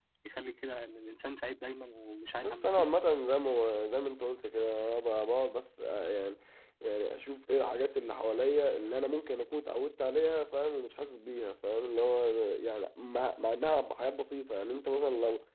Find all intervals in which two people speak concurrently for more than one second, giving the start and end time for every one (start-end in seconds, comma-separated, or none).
none